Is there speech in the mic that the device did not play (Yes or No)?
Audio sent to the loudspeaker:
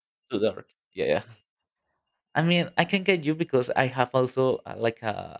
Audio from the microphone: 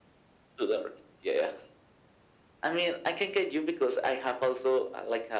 No